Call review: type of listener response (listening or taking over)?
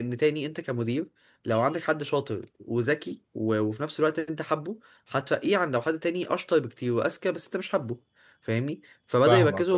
listening